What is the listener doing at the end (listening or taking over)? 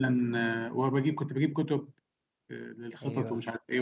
listening